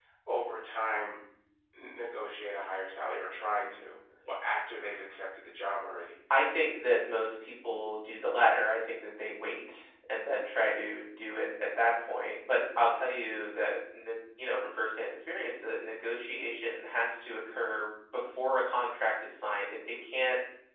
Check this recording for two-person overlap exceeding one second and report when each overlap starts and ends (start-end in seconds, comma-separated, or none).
none